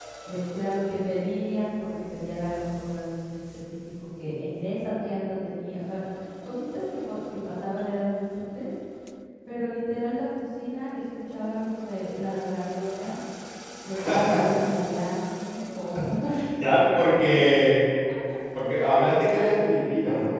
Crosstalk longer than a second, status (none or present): none